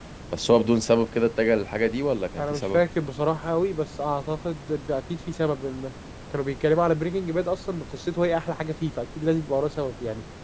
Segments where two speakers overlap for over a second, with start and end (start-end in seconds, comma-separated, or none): none